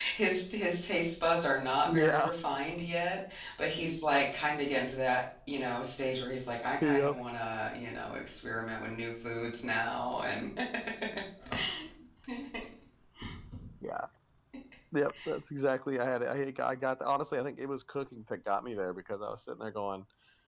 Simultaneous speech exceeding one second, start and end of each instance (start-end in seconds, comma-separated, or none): none